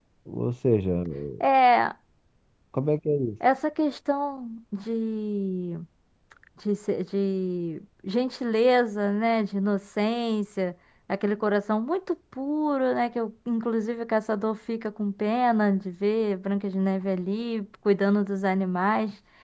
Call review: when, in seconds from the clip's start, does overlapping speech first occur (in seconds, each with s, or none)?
none